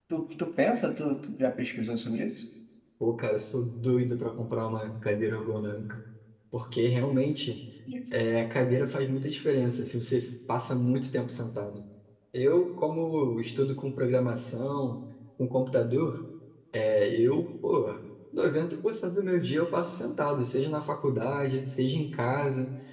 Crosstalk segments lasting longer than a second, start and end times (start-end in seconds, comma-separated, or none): none